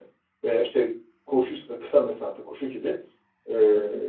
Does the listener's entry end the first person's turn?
No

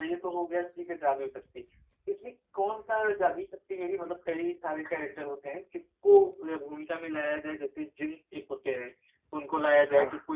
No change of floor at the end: Yes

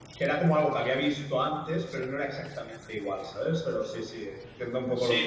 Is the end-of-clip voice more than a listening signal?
Yes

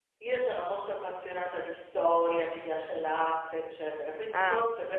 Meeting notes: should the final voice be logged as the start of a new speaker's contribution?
No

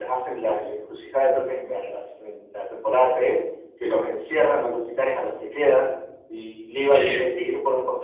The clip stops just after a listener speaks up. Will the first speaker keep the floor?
Yes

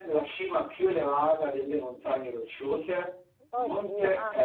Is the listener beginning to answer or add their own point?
No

